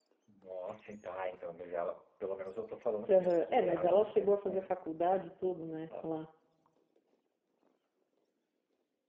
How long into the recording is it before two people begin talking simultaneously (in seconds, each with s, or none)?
3.1 s